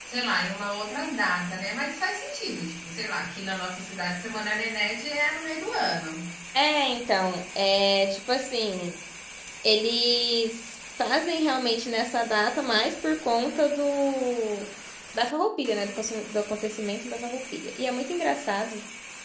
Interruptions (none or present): none